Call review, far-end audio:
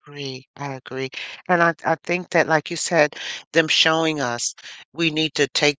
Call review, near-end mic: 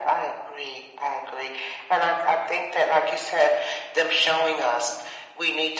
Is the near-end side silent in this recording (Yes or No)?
Yes